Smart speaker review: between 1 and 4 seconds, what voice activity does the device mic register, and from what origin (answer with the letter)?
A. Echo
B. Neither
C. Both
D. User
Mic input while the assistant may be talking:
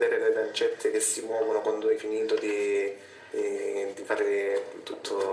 A